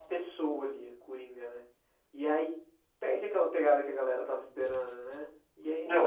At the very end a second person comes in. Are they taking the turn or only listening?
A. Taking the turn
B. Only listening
B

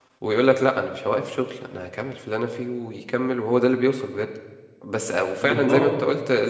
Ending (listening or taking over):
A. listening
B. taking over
A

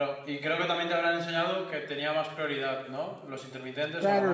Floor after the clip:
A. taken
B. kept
A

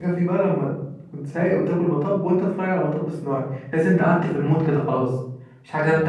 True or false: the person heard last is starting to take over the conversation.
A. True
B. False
A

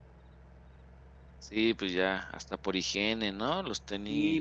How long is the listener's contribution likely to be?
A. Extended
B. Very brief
A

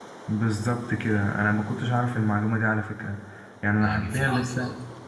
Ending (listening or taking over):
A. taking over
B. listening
A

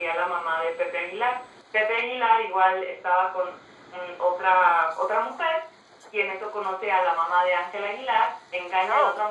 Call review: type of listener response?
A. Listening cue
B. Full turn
A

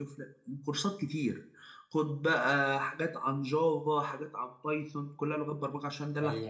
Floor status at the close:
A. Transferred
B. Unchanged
A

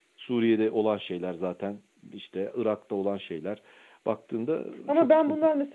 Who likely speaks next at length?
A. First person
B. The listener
B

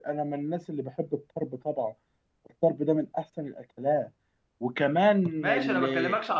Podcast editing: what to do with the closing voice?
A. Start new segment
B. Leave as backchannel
A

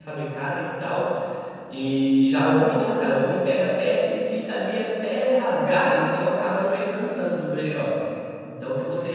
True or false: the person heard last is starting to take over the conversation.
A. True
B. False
B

